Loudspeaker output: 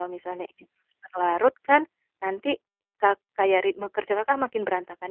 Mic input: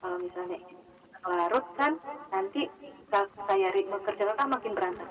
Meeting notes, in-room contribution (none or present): none